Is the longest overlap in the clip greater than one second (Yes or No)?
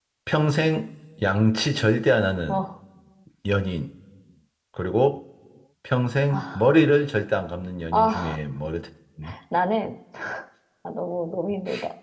No